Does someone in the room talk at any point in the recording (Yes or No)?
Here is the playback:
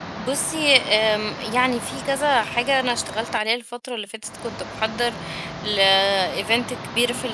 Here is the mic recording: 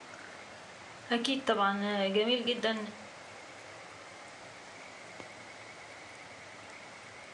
Yes